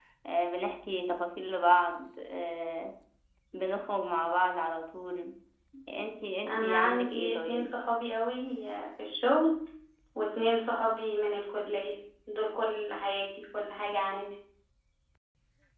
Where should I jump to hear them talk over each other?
6.5 s

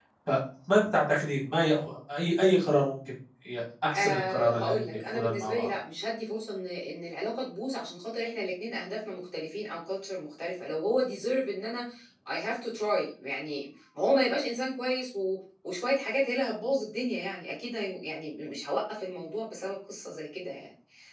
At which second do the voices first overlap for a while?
3.9 s

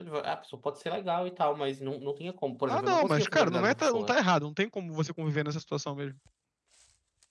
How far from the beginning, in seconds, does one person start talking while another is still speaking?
2.7 s

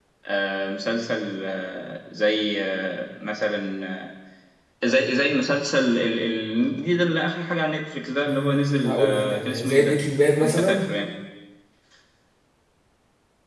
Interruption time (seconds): 8.3 s

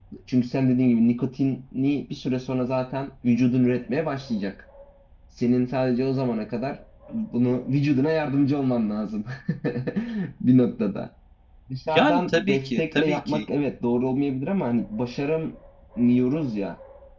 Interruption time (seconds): 11.9 s

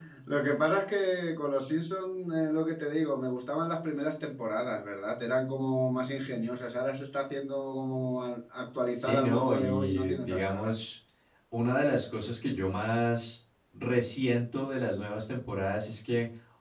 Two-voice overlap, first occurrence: 9.0 s

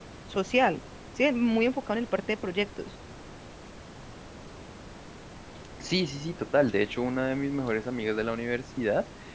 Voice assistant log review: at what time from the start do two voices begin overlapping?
none

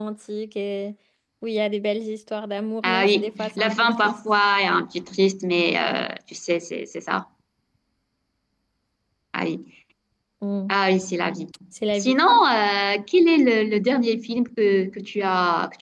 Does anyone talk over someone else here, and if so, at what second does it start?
2.8 s

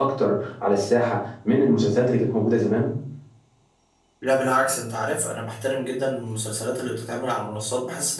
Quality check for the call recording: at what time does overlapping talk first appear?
none

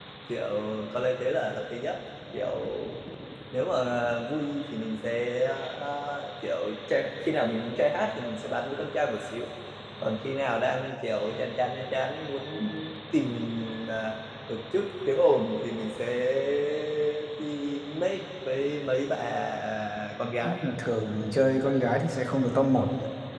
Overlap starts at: none

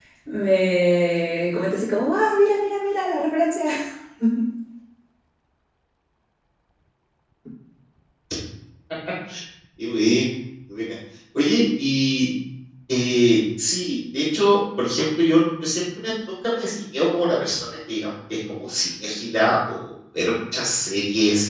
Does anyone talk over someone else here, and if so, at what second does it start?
none

